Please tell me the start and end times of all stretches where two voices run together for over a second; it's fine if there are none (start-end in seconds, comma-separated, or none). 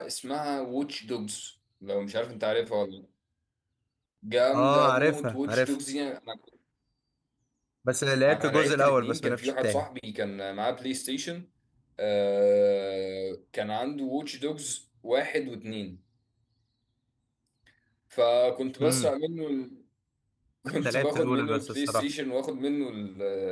4.5-5.8, 8.3-9.9, 20.8-22.1